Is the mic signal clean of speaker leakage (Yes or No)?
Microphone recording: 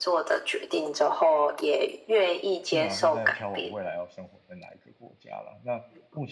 No